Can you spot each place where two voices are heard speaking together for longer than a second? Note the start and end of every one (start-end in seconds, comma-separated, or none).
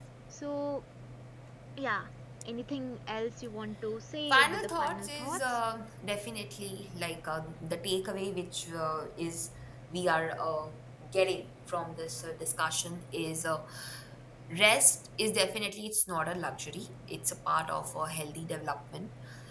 4.3-5.6